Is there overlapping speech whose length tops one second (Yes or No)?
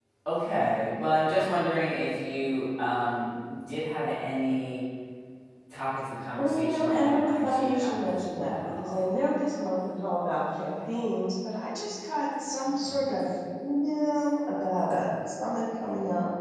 Yes